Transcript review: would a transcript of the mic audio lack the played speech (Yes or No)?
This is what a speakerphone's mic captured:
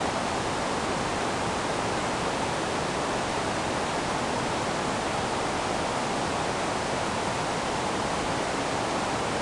Yes